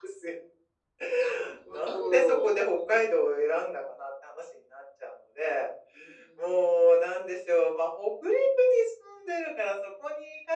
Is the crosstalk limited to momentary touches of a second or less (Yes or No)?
No